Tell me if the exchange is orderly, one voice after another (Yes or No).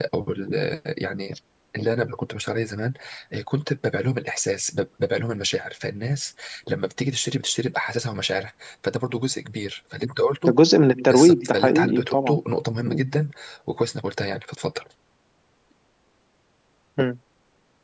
No